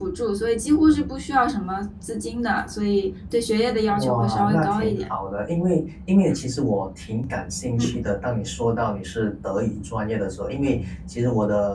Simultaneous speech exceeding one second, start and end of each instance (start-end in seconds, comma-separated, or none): 3.9-5.1